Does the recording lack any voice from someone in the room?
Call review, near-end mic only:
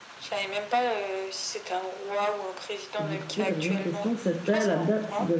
No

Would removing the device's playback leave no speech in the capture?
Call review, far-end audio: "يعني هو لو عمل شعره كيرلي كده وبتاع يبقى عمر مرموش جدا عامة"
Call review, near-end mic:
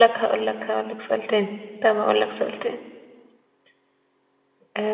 No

